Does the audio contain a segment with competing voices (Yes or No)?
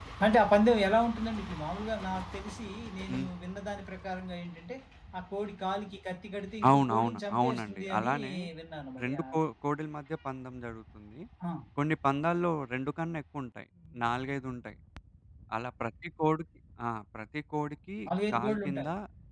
Yes